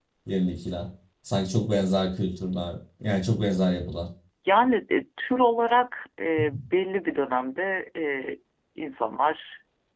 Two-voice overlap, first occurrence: none

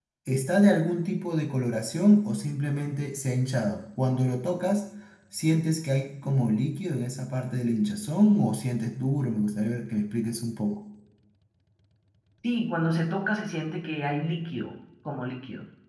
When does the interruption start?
none

